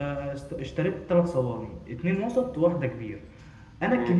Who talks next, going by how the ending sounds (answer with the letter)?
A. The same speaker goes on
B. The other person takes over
A